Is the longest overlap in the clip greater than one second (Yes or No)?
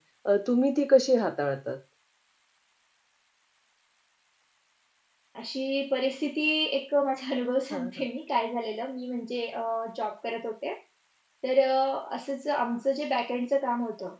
No